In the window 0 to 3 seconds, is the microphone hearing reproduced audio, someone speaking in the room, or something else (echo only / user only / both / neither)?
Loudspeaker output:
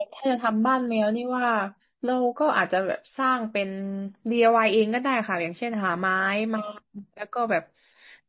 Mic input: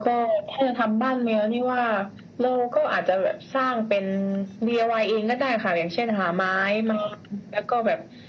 echo only